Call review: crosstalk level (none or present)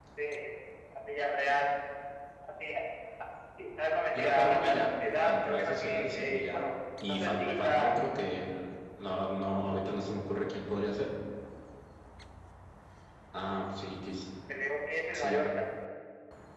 present